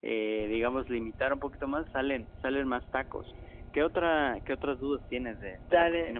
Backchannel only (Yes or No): No